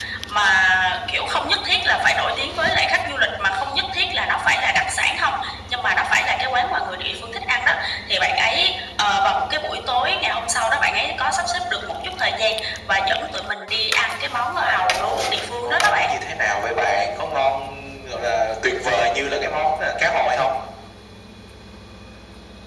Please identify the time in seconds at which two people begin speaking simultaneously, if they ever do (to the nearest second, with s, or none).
15 s